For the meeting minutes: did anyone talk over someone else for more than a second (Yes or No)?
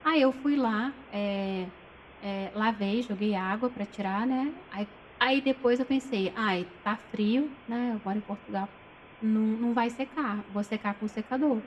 No